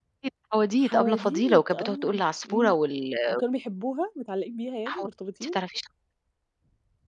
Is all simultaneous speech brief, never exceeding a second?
No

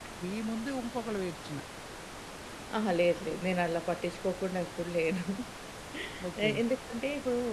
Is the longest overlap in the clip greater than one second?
No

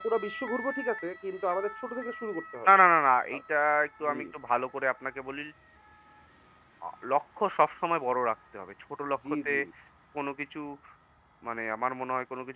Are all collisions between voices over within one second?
Yes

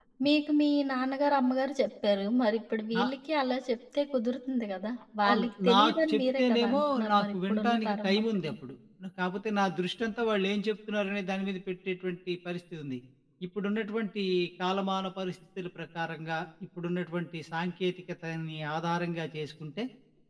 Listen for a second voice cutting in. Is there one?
Yes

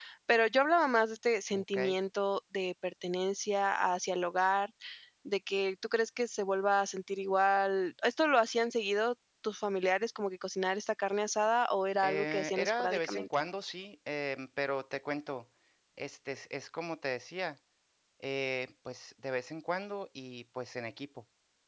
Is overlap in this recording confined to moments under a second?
No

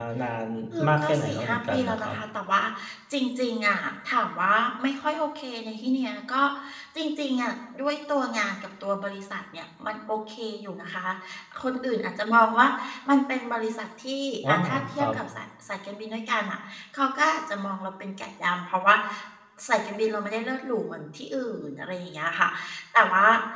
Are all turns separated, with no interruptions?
No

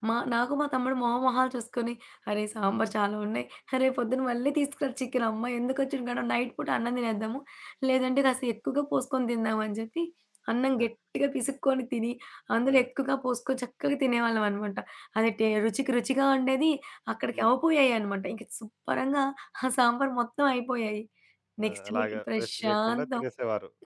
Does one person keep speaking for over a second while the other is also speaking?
Yes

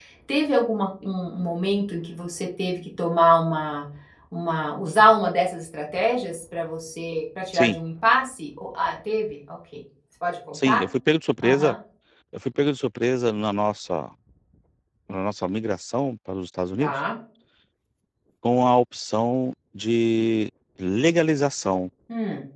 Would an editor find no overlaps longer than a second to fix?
Yes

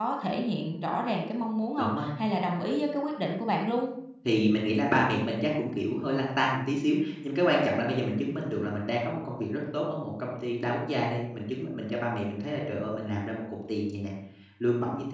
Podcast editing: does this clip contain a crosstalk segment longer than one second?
No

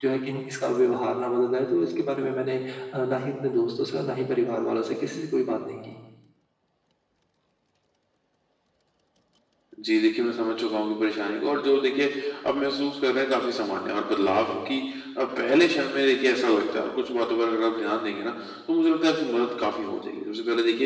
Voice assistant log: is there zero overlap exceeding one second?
Yes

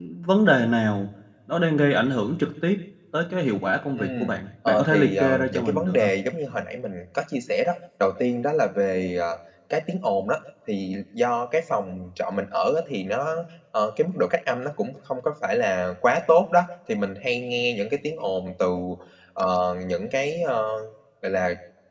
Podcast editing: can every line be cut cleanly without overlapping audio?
No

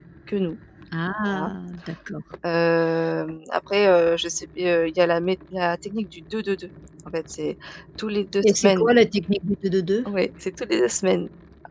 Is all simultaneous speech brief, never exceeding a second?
Yes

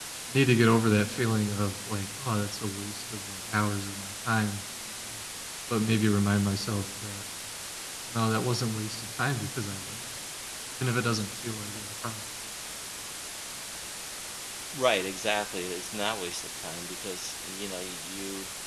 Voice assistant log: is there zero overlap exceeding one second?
Yes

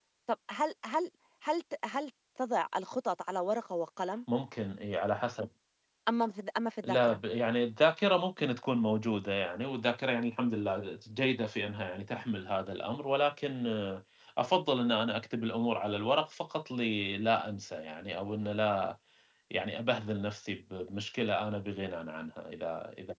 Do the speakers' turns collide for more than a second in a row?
No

